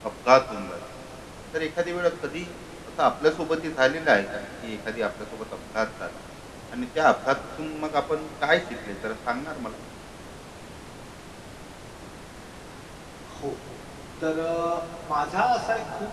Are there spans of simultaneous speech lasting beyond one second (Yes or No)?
No